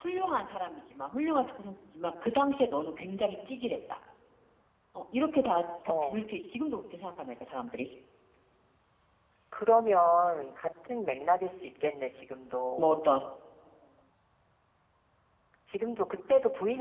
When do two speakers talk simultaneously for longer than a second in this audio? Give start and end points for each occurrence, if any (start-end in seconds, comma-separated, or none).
none